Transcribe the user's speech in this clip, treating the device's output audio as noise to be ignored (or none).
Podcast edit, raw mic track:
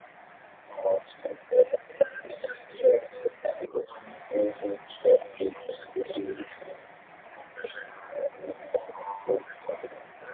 none